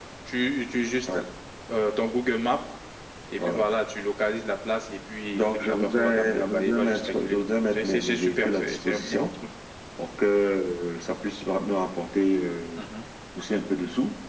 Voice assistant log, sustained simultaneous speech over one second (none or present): present